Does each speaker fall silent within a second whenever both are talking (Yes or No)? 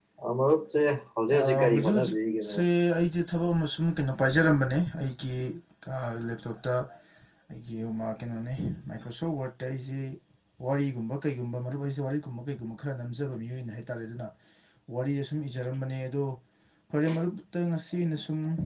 No